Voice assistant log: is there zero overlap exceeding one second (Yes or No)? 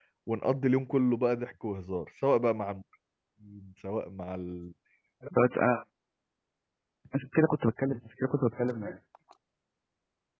Yes